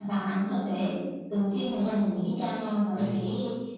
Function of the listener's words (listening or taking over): listening